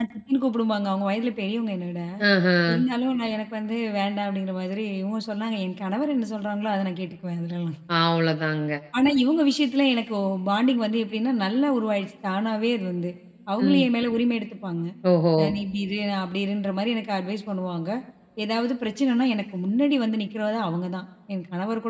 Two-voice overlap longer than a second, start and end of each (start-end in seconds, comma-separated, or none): none